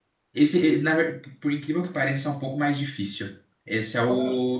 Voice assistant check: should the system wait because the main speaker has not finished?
Yes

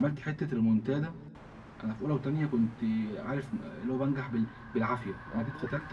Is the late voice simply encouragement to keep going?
Yes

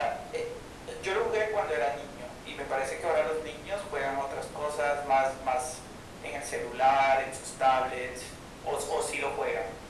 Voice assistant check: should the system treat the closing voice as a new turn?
Yes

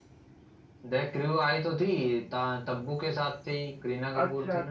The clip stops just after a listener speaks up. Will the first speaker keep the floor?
No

